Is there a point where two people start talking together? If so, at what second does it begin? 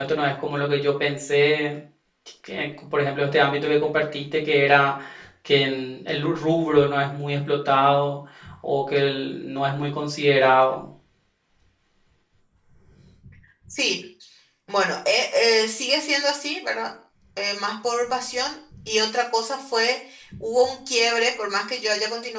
none

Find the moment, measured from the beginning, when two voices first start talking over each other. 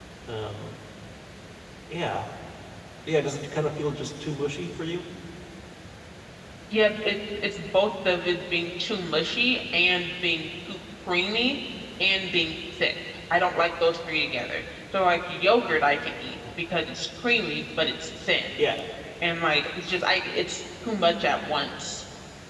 none

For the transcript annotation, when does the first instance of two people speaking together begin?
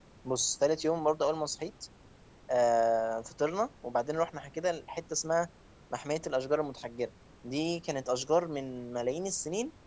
none

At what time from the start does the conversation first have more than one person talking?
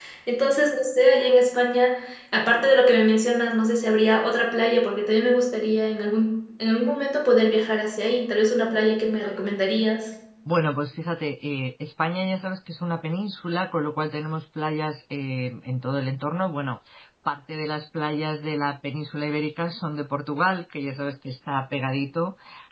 none

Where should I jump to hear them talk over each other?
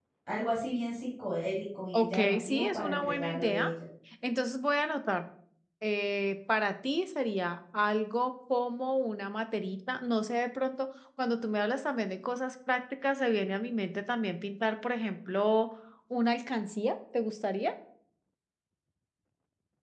2 s

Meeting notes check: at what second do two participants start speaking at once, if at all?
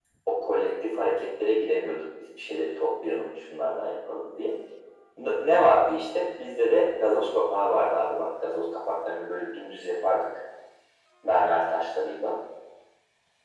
none

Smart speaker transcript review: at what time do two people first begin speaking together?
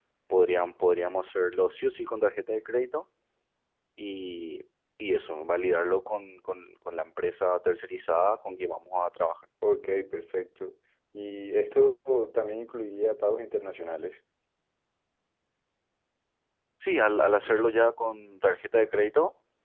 none

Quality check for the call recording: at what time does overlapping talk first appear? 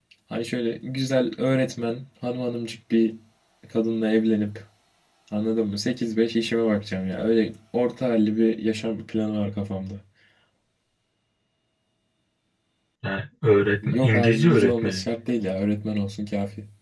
14 s

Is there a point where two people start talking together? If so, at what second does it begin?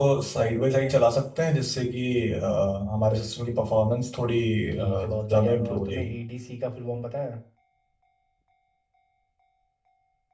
5 s

